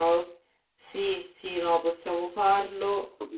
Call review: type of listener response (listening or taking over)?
taking over